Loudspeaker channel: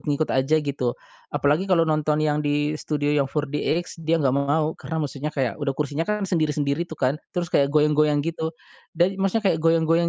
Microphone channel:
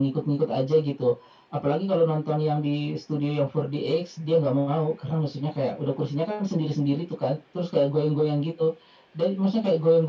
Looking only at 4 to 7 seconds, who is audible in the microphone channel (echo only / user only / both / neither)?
echo only